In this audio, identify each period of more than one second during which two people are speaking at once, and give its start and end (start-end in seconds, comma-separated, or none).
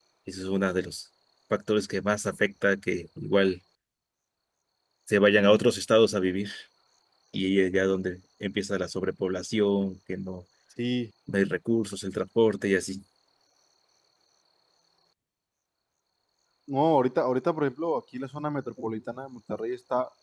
none